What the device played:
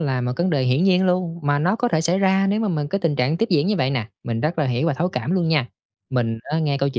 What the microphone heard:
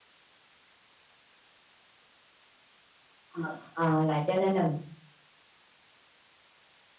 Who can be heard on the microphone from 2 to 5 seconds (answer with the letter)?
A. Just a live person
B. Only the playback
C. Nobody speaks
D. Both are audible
A